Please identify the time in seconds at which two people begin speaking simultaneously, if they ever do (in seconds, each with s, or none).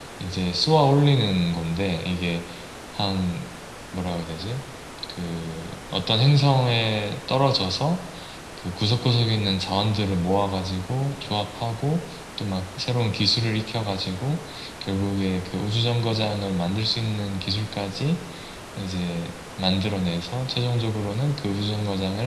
none